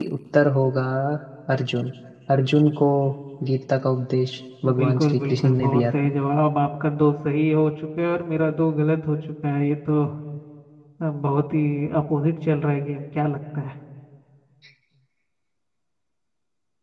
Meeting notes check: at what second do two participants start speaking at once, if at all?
4.6 s

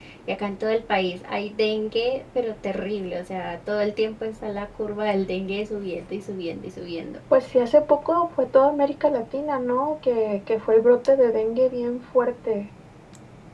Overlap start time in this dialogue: none

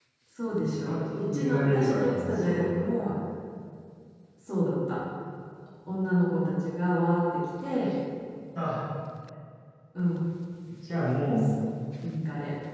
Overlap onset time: 0.6 s

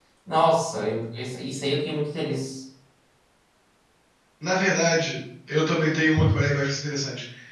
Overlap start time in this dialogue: none

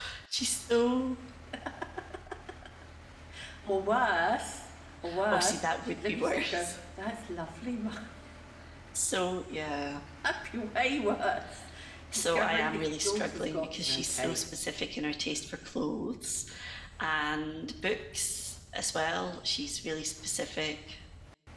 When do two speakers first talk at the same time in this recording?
5.3 s

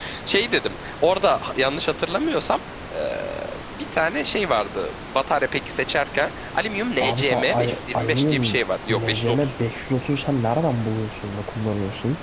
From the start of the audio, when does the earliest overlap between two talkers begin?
7.0 s

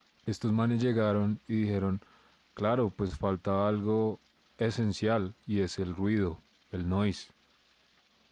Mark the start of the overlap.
none

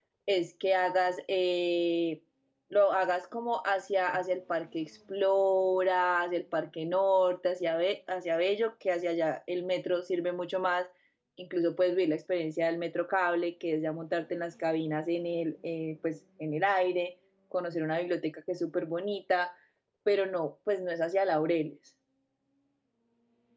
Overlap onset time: none

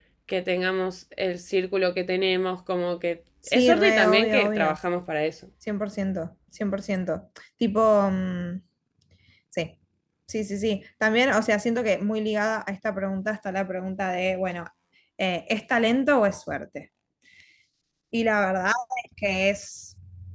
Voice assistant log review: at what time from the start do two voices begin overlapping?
3.4 s

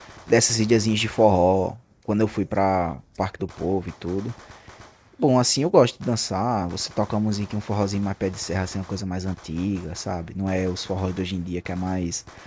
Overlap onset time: none

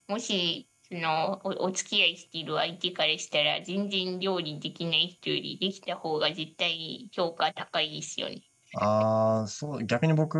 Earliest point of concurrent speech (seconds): none

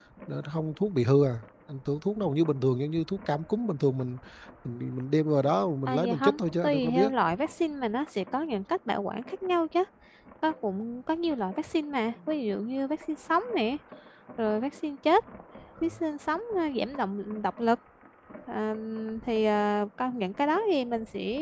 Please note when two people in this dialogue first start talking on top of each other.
5.9 s

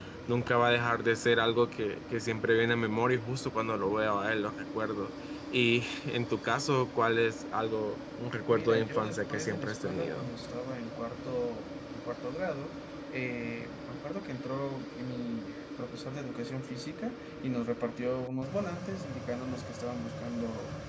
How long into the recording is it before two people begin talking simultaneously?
8.5 s

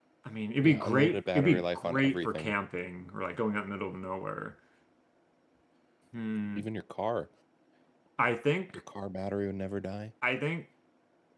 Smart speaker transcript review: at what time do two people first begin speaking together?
0.6 s

